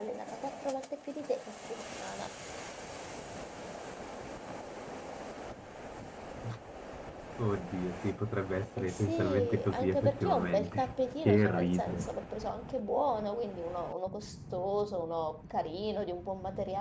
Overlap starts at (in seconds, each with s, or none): 8.8 s